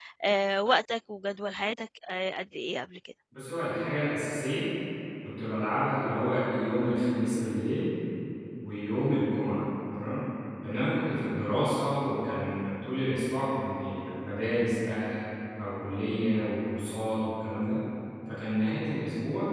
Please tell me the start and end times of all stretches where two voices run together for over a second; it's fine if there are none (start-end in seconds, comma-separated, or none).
none